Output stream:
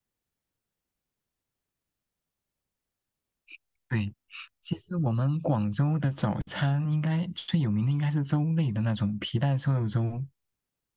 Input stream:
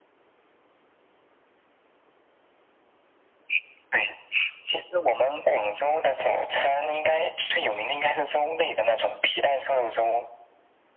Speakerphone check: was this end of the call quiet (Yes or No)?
Yes